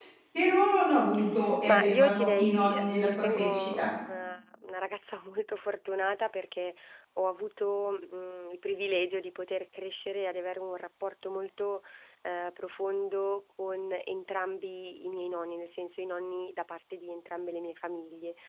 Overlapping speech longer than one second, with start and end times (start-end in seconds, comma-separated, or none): 1.7-3.9